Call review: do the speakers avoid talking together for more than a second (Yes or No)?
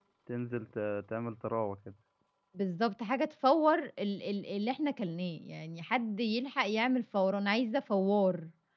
Yes